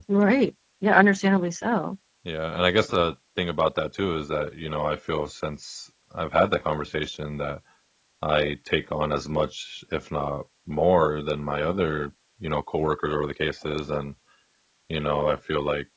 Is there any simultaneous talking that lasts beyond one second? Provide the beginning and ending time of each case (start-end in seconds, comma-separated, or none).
none